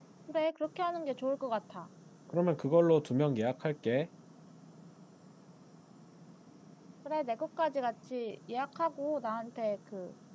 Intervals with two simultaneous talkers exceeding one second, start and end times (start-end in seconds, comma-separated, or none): none